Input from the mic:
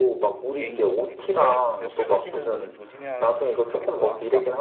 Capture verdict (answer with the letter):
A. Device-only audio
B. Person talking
B